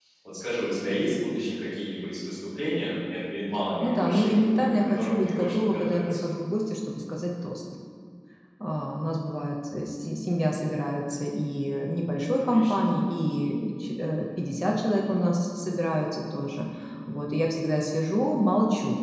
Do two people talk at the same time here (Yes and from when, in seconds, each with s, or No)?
Yes, from 3.8 s